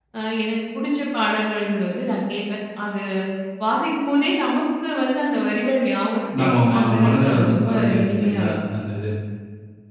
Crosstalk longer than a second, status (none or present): present